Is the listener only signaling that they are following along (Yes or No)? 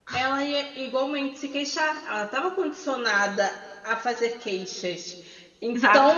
Yes